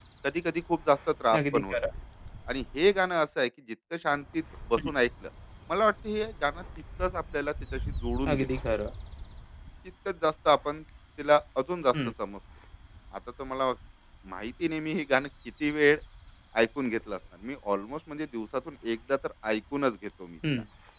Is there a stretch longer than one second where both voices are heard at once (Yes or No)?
No